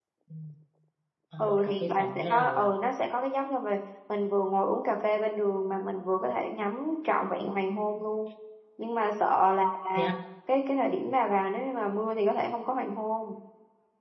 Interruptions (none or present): present